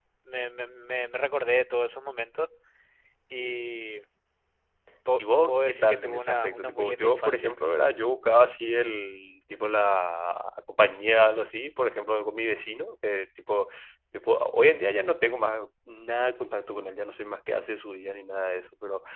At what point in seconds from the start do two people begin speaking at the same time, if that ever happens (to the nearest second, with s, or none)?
5 s